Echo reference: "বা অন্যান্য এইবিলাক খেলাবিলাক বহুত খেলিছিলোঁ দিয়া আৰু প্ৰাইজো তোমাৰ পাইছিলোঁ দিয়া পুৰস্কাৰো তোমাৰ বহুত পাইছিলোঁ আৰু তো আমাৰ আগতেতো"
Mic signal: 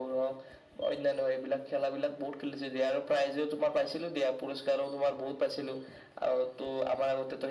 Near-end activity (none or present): none